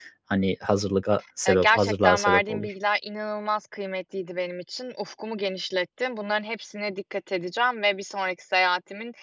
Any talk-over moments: Yes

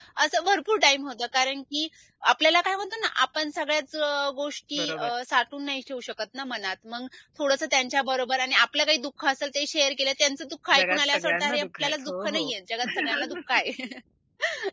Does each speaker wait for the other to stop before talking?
No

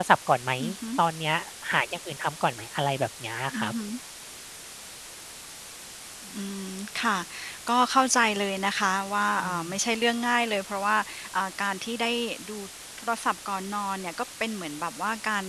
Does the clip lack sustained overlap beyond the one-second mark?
Yes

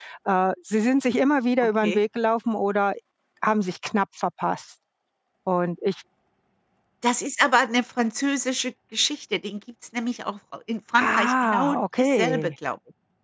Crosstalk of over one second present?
Yes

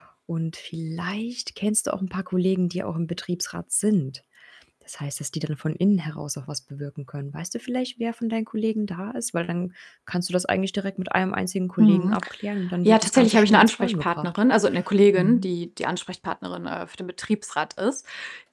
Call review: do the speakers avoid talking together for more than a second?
No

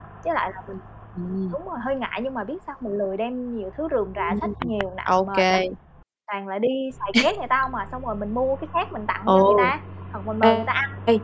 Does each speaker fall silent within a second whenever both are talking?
Yes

